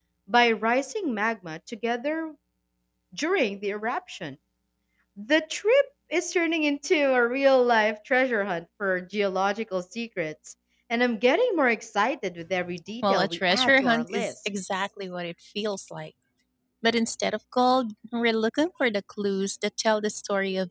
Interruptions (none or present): present